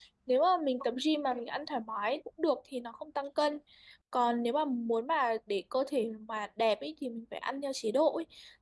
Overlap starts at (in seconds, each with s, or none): none